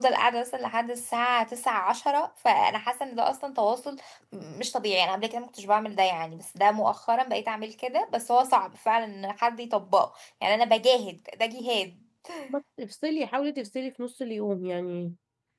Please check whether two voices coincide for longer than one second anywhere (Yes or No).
No